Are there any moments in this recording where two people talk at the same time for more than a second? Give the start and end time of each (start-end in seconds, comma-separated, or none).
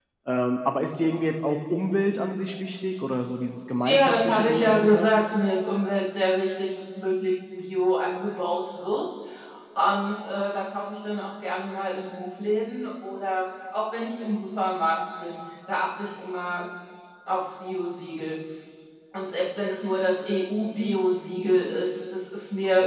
3.8-5.1